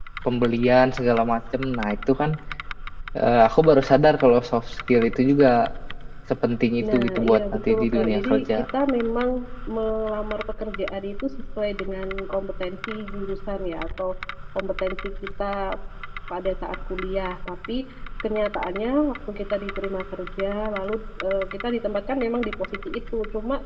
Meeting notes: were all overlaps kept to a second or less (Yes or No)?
No